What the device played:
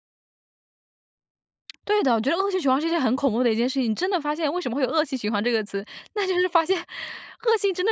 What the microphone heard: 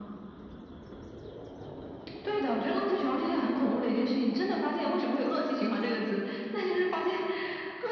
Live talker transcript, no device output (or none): none